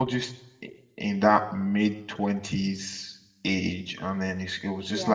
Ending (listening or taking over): listening